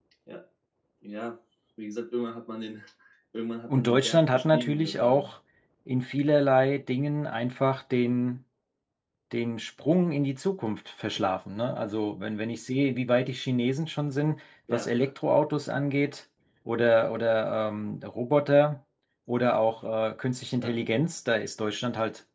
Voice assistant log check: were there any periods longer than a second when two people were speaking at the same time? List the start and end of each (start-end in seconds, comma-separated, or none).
3.8-5.3